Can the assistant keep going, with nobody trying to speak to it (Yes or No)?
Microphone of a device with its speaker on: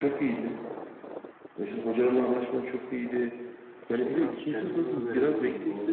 No